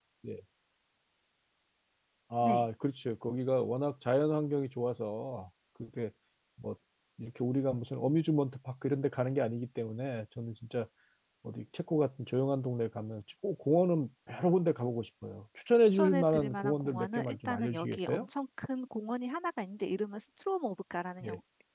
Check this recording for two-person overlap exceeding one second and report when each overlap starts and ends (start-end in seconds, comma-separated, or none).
15.9-18.2